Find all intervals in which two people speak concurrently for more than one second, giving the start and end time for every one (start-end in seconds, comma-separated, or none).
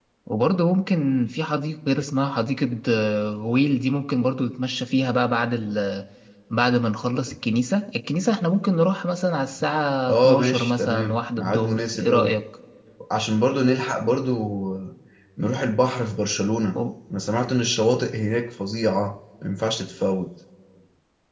10.1-12.4